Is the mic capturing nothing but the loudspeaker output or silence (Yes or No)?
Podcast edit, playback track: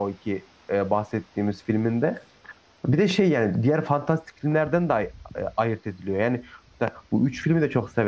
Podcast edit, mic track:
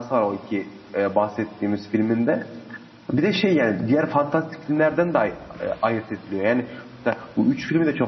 Yes